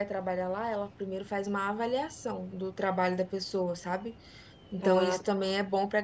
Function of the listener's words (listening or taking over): listening